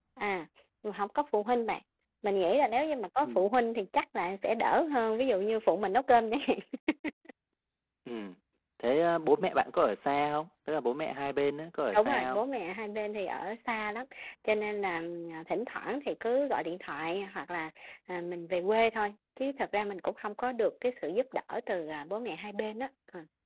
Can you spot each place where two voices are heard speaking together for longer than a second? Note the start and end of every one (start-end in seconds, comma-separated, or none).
none